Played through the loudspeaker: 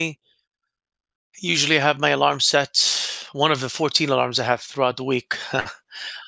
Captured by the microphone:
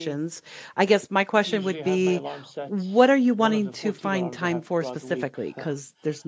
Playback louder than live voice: No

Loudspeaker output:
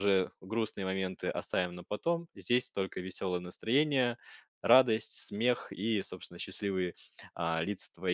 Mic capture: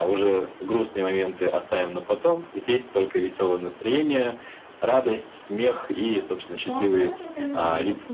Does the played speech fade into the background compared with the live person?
No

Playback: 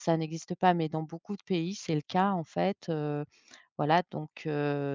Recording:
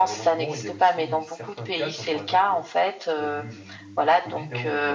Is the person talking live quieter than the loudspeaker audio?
Yes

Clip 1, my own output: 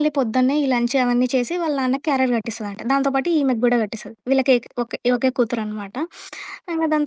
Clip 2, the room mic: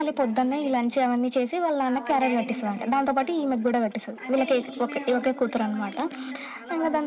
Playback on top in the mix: Yes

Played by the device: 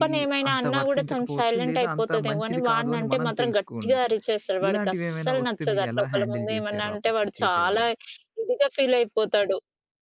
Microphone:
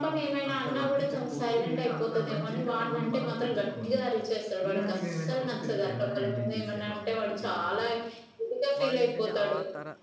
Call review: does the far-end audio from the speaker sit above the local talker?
Yes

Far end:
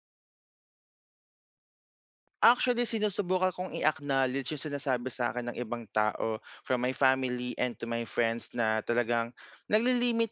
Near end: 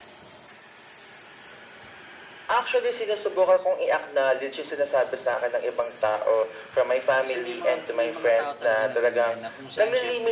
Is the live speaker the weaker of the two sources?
Yes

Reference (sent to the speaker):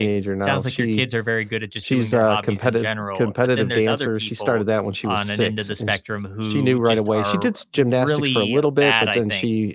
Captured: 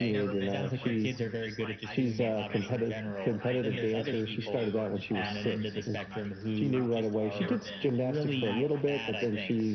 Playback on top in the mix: Yes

